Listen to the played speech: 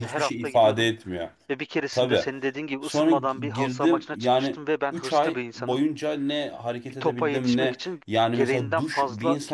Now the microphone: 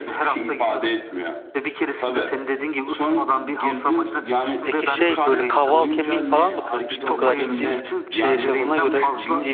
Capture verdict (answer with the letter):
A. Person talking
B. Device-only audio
A